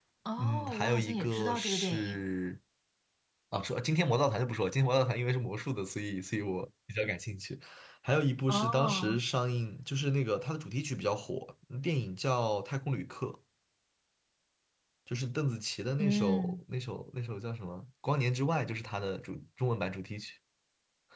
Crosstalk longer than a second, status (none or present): present